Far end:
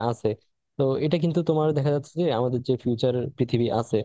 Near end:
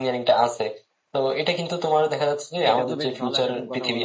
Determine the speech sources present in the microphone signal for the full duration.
both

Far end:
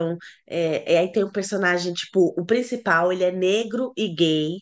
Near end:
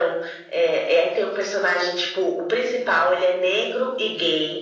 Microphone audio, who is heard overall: echo only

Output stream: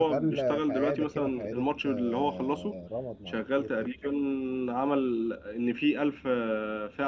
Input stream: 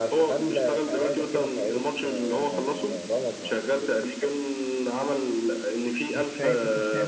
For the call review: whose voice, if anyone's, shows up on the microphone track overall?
both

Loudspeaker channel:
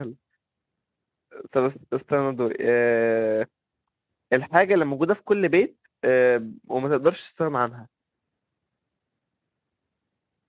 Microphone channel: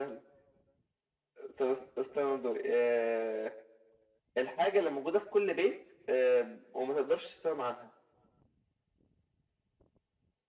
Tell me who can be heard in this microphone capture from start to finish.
echo only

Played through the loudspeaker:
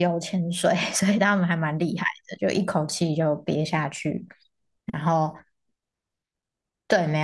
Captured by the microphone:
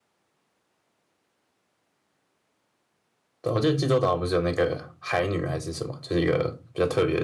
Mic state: user only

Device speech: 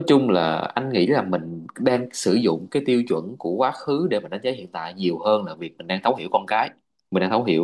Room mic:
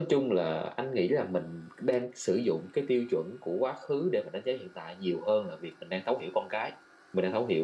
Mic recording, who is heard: echo only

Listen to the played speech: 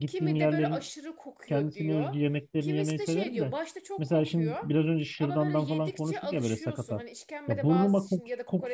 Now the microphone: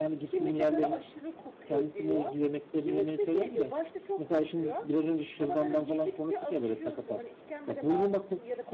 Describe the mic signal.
echo only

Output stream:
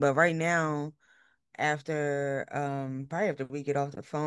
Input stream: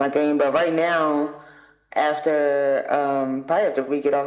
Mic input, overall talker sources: echo only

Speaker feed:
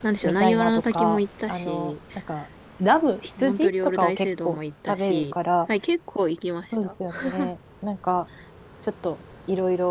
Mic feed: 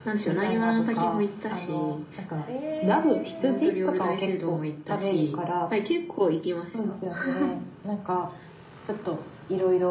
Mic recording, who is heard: both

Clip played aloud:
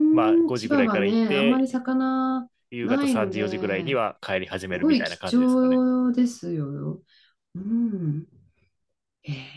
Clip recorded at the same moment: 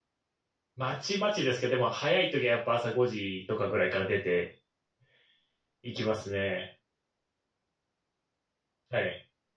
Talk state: user only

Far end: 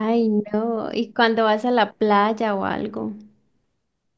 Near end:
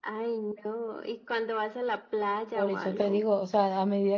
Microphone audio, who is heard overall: both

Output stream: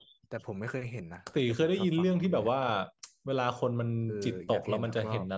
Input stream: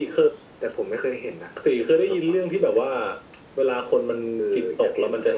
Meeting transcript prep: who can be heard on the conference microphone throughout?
echo only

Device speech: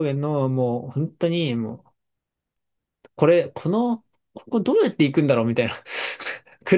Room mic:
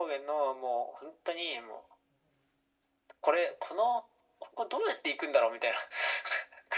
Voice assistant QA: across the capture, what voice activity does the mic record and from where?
echo only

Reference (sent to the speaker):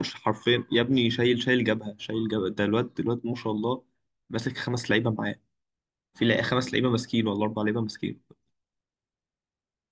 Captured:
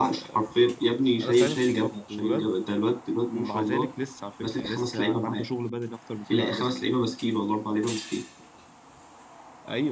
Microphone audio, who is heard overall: both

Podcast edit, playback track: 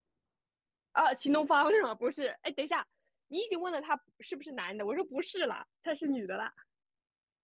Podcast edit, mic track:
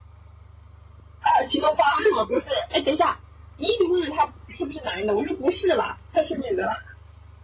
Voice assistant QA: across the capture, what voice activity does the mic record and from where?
echo only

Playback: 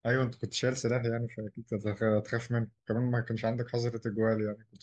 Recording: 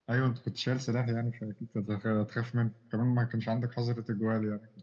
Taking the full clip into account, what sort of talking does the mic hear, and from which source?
echo only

